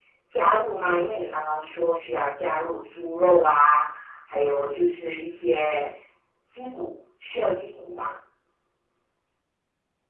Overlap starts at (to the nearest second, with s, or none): none